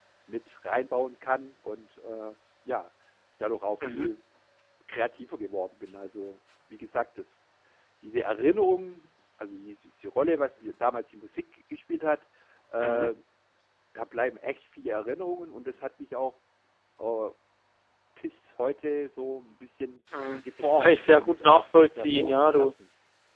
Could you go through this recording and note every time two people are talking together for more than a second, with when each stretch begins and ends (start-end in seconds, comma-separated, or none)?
20.6-22.7